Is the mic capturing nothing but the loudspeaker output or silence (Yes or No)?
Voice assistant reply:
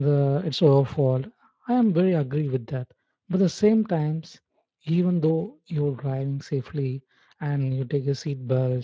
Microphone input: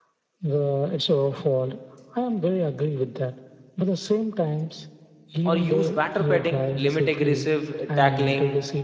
No